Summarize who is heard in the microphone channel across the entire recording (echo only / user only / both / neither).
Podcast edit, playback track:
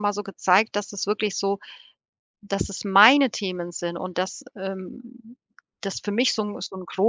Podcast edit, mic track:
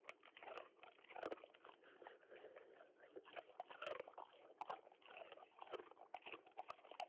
neither